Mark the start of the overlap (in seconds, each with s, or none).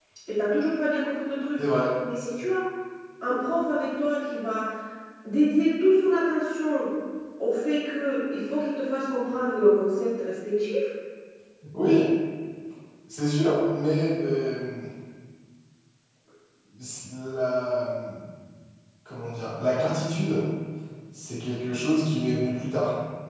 none